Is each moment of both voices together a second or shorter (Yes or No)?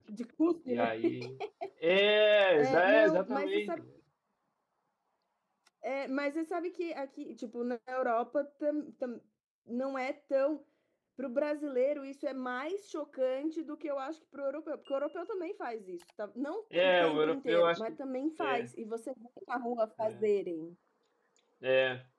No